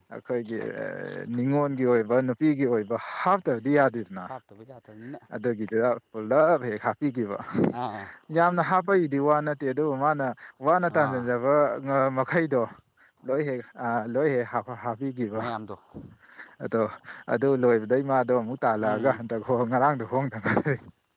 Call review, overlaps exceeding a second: none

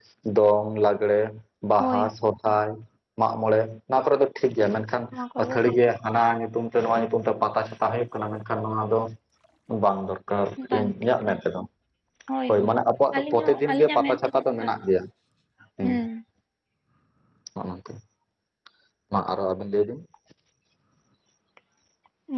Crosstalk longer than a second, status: present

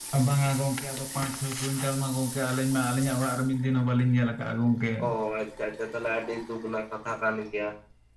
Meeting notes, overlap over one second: none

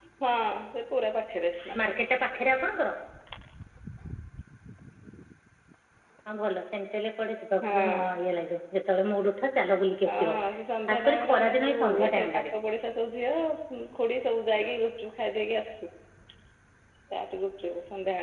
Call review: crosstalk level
present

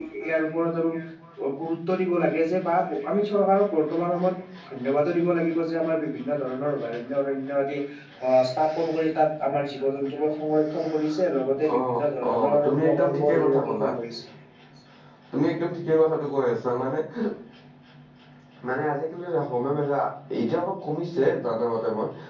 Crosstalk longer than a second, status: present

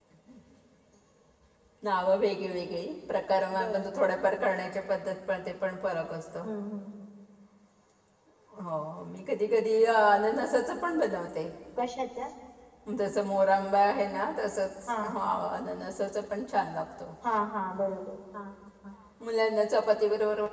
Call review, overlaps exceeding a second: none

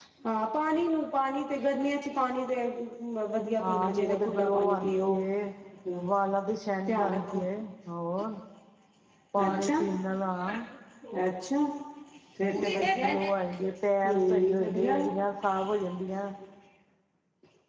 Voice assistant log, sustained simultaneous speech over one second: present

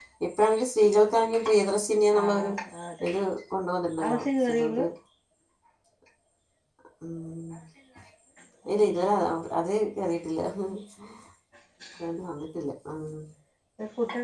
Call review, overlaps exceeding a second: none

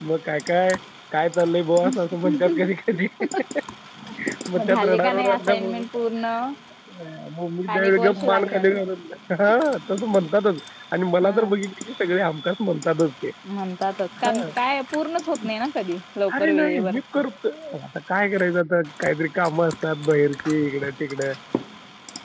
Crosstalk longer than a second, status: present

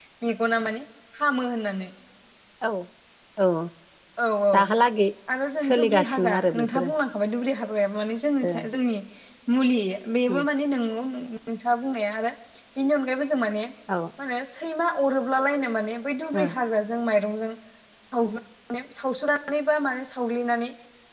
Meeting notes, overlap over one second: present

